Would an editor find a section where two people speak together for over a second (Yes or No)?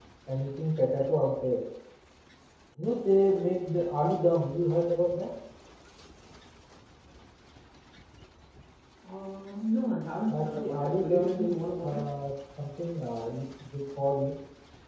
Yes